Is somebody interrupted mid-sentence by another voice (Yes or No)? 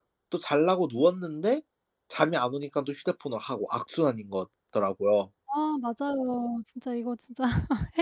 No